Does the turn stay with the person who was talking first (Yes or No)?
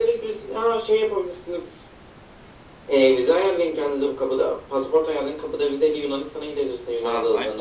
No